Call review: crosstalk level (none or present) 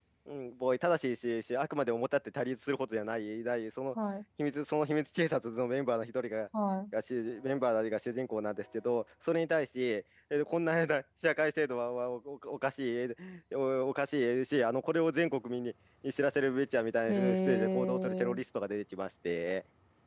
present